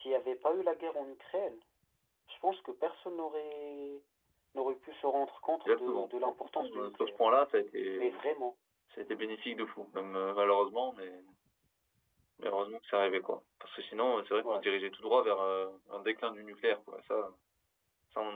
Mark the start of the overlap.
5.7 s

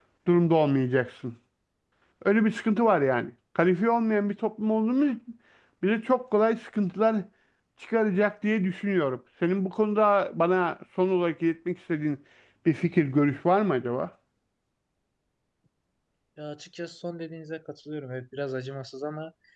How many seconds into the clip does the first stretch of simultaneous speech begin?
none

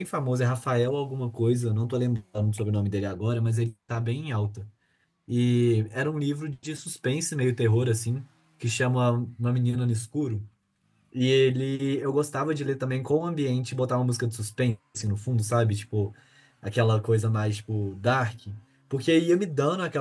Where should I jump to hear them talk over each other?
none

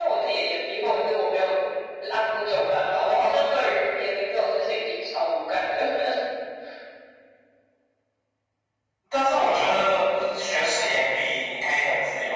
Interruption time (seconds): none

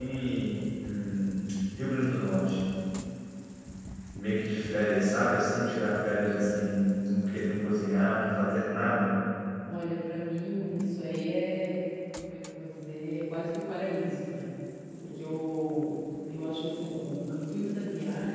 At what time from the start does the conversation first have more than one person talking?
none

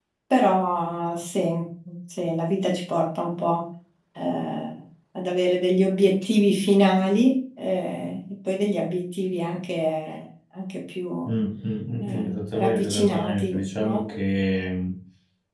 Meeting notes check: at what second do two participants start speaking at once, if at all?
12.0 s

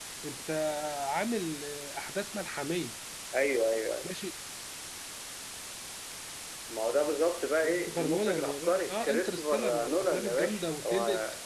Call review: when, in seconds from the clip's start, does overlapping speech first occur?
7.6 s

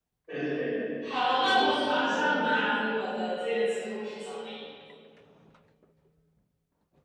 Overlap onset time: 1.1 s

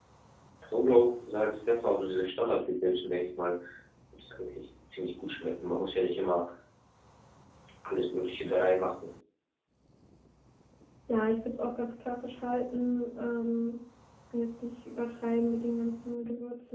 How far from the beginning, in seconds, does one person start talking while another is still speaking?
none

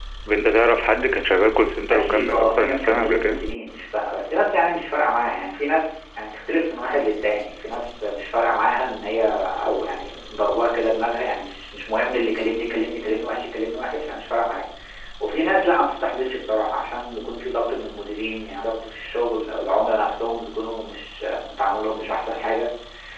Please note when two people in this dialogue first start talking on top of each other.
1.9 s

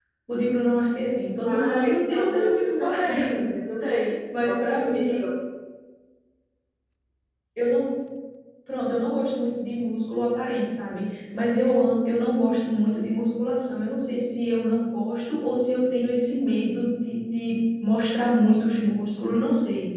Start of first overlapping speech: 1.4 s

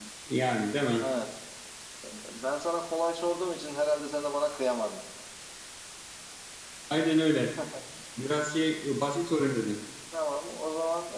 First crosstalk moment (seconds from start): none

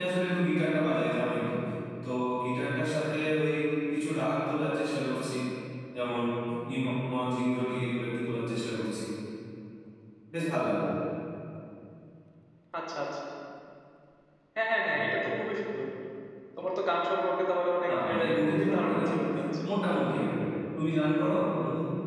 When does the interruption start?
17.9 s

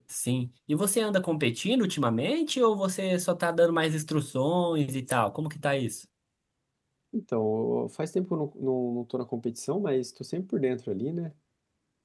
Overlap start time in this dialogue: none

